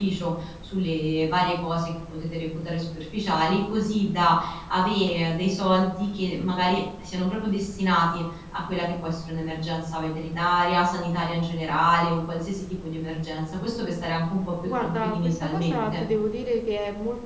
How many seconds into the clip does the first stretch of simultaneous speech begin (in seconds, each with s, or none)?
14.6 s